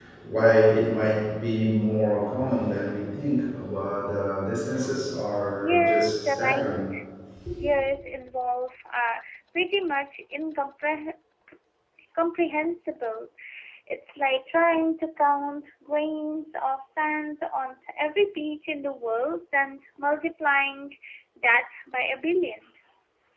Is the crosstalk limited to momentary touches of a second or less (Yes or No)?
No